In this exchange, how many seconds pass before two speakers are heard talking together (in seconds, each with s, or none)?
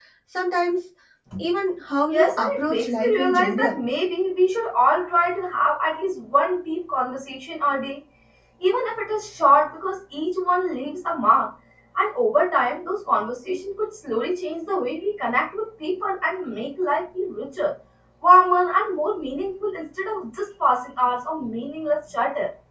2.1 s